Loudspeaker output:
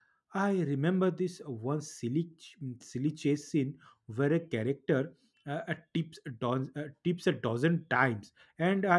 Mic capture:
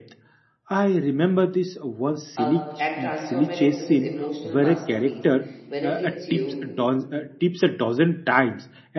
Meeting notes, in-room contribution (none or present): present